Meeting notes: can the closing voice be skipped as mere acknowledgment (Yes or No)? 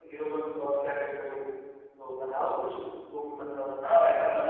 No